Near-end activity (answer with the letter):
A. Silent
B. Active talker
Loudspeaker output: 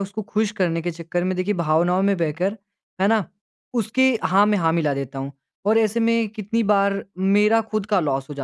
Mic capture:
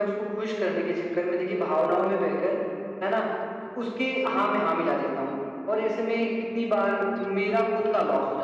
A